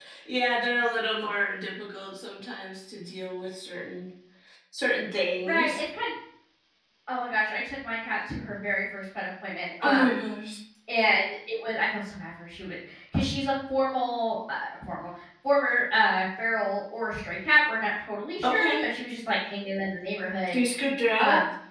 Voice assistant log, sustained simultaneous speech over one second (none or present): none